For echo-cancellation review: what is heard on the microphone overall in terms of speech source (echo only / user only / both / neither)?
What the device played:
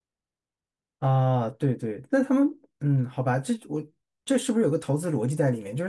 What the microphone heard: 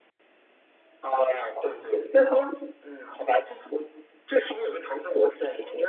both